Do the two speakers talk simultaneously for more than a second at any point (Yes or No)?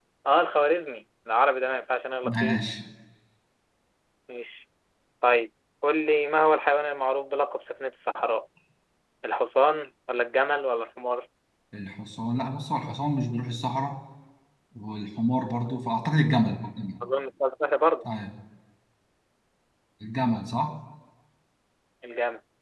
No